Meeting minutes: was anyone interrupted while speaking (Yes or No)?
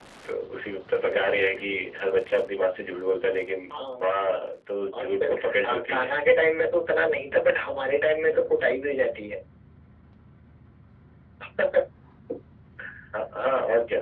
Yes